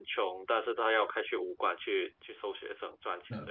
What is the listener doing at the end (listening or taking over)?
taking over